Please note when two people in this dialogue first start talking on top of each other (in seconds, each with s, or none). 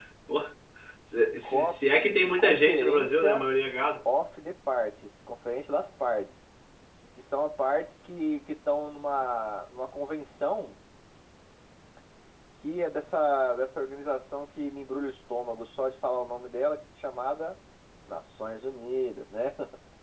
1.4 s